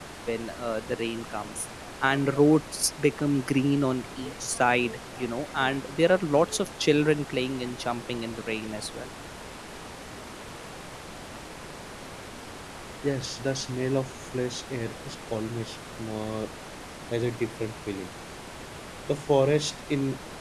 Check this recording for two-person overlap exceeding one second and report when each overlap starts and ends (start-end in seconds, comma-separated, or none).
none